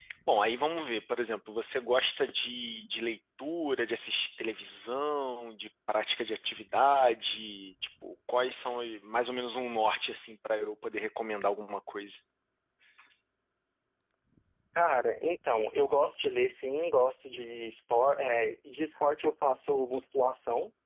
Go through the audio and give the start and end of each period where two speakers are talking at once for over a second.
none

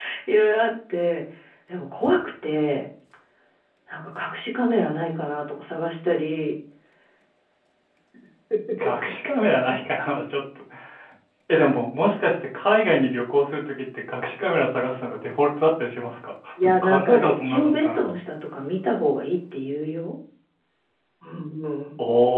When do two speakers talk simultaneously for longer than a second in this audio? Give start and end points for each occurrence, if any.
16.6-18.1

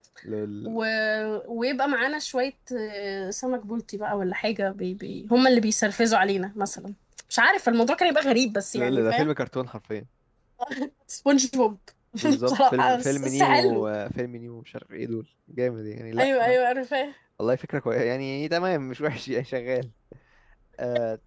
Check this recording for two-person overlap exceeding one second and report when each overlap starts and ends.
12.5-13.8

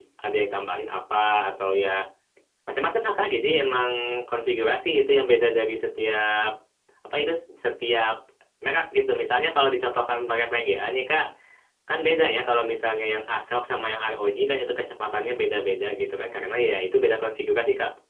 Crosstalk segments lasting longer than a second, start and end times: none

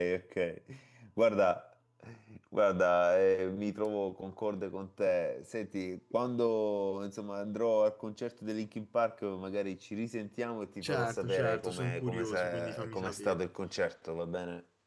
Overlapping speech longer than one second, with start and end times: 10.8-13.4

